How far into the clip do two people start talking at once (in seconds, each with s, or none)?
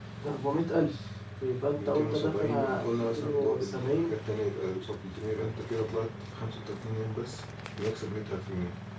1.8 s